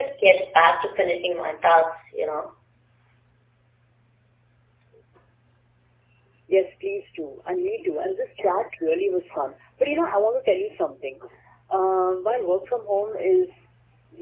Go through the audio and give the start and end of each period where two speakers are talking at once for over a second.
none

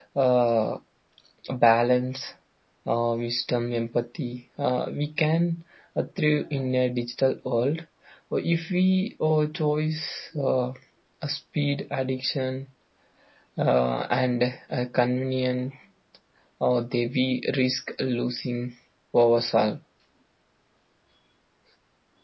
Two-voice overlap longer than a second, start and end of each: none

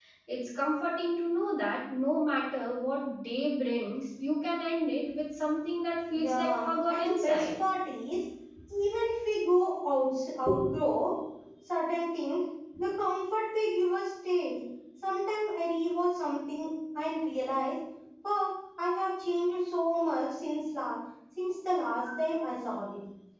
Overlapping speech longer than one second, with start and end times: 6.2-7.4

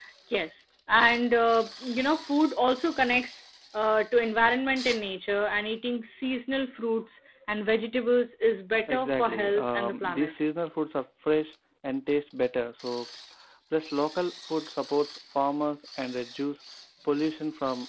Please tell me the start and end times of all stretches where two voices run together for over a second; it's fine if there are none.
8.9-10.3

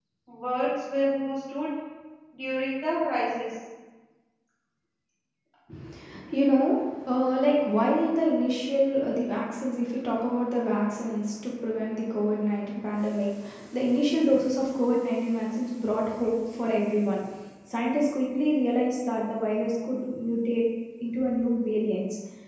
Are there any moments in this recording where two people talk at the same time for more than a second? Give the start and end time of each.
none

